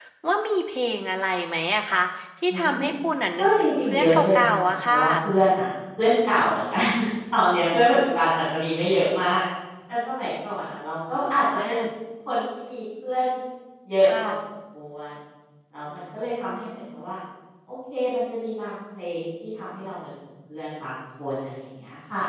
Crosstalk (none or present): present